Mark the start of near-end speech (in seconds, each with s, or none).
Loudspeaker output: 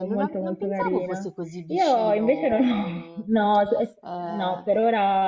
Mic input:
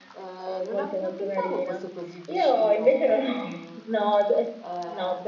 none